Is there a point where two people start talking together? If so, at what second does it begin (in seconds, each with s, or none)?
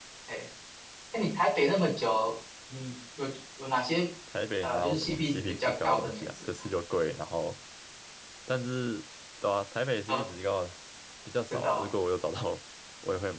4.6 s